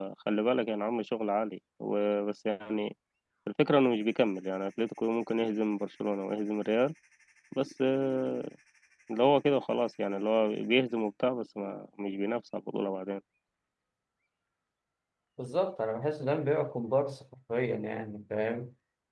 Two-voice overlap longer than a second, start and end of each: none

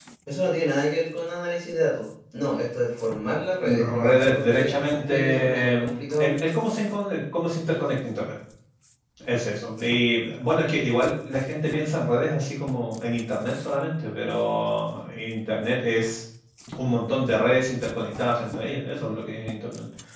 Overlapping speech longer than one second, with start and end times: 3.3-6.3

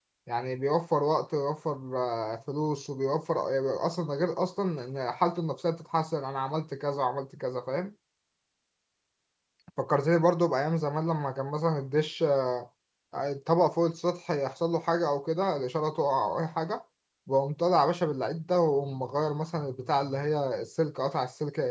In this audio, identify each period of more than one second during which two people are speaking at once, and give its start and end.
none

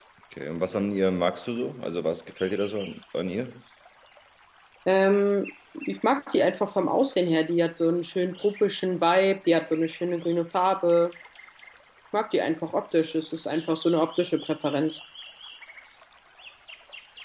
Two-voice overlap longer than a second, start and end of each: none

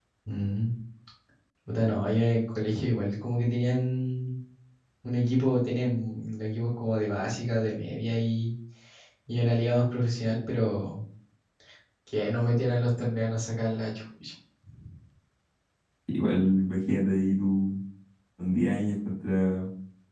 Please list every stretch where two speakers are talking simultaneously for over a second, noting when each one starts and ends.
none

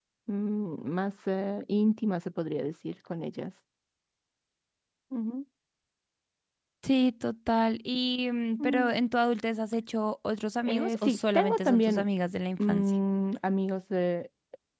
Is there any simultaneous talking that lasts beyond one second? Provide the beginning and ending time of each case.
10.6-12.1

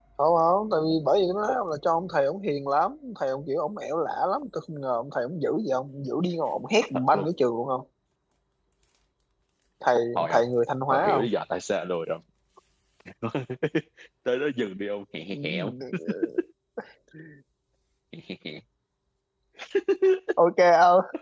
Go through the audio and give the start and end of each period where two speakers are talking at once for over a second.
none

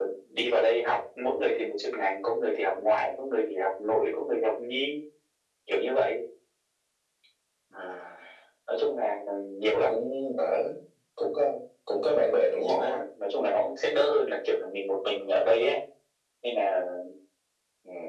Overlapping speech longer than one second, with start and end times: none

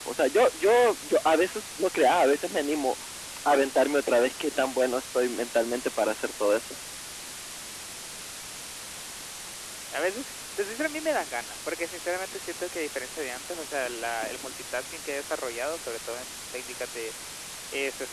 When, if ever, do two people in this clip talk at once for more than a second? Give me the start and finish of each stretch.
none

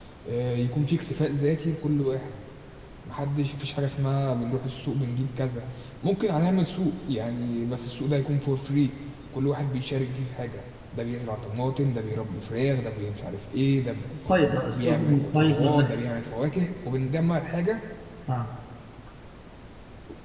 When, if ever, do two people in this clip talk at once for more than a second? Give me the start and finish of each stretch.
14.7-16.0

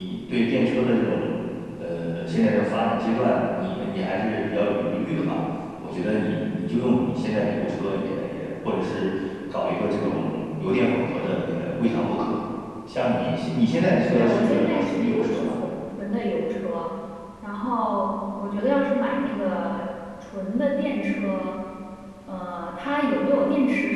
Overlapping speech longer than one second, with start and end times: 14.1-15.4

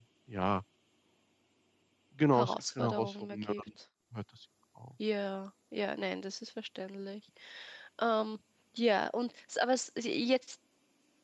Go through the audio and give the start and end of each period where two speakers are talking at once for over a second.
2.3-3.6

